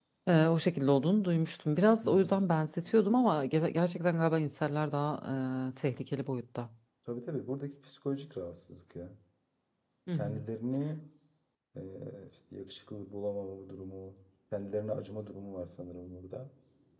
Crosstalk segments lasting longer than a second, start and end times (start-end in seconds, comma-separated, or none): none